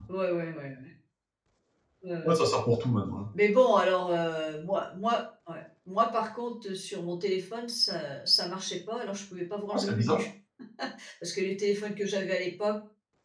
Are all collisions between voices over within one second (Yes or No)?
Yes